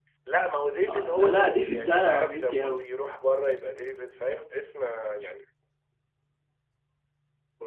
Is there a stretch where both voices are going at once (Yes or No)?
Yes